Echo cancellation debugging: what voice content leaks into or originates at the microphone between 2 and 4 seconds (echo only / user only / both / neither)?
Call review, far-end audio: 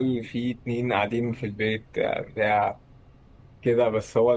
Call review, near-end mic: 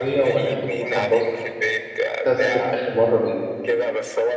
both